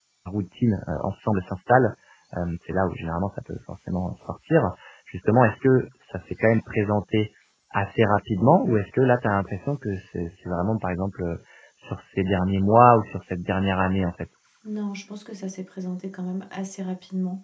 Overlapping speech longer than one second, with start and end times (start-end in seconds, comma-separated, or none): none